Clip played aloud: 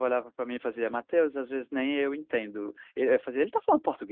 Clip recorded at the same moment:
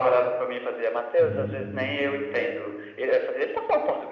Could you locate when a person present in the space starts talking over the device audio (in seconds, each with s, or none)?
1.2 s